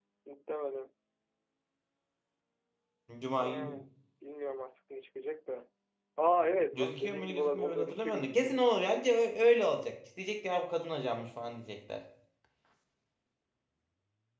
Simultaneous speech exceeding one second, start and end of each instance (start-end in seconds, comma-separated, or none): 6.7-8.8